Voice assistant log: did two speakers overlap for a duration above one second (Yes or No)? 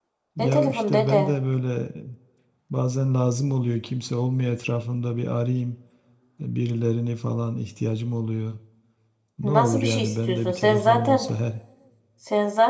Yes